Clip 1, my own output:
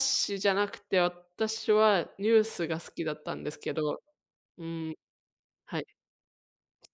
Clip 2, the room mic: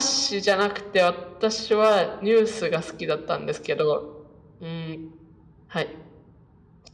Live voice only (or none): none